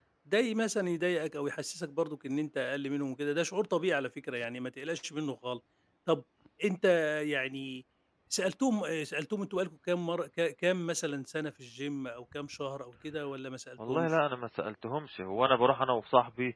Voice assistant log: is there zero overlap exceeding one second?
Yes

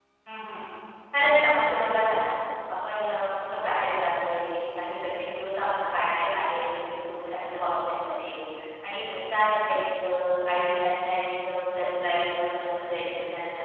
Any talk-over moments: No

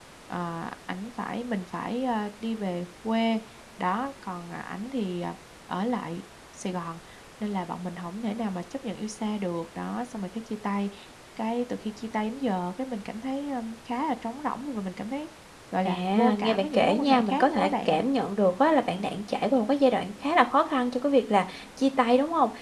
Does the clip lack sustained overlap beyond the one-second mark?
No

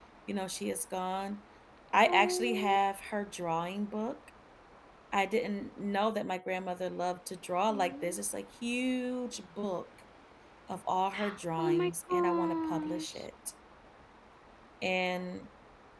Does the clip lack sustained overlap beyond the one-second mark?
No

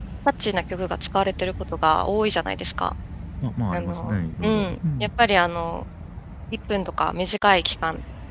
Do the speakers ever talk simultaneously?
Yes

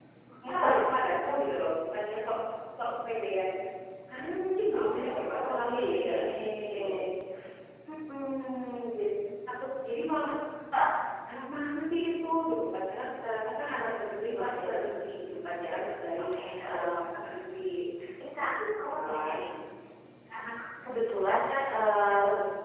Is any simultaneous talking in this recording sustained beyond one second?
Yes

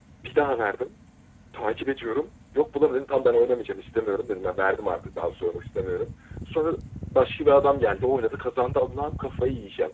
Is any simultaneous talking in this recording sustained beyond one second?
No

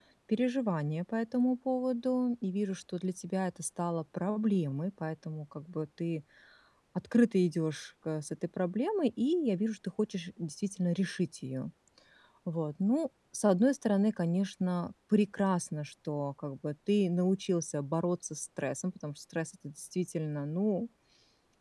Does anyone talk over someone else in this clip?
No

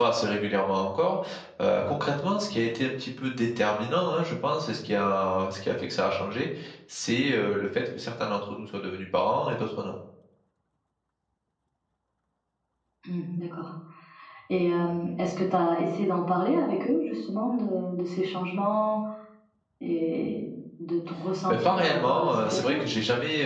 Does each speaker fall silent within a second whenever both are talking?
No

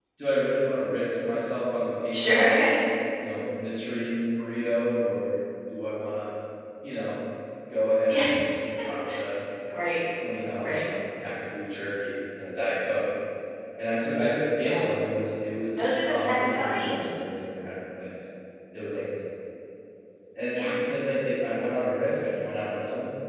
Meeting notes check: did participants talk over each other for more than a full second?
Yes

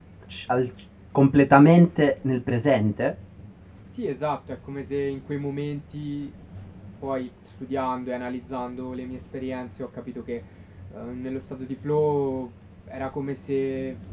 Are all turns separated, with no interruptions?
Yes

